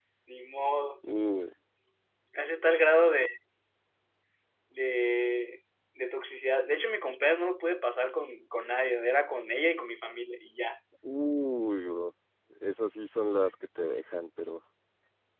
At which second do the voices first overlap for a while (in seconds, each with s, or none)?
none